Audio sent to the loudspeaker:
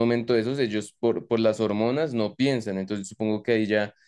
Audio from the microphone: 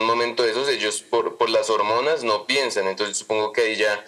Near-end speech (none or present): none